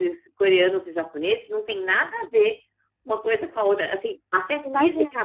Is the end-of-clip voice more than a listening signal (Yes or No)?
No